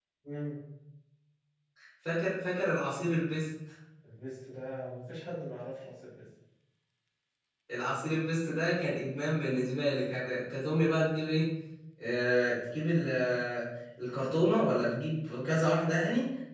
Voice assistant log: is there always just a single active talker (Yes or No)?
Yes